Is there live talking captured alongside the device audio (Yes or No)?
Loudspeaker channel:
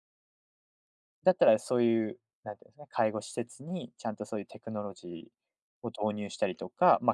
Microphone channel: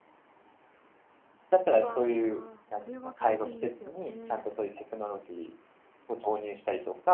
Yes